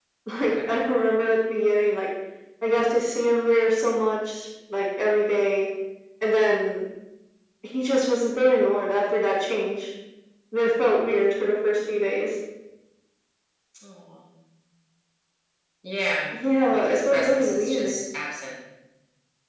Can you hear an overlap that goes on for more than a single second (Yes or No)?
Yes